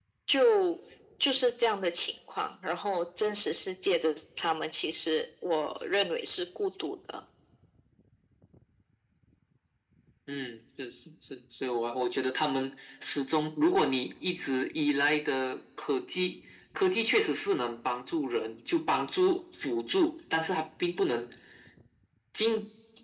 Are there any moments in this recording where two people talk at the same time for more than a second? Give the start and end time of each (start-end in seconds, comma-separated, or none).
none